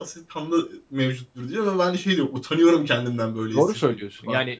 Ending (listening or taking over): taking over